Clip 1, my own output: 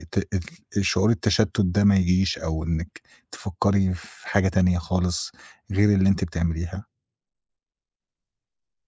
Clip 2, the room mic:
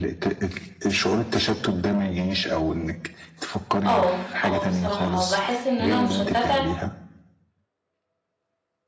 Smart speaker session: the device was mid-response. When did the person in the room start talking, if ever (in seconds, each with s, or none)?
3.8 s